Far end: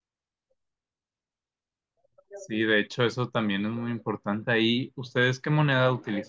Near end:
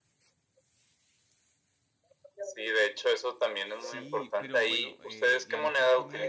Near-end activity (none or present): present